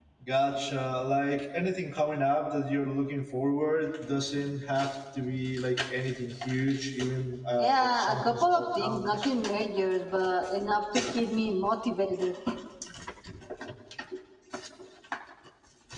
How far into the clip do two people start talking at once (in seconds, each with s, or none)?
7.6 s